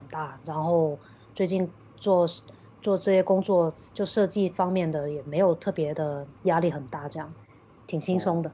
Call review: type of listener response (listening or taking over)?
taking over